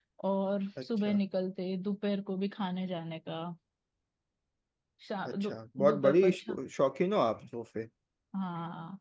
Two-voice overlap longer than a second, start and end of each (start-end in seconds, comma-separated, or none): 5.3-6.6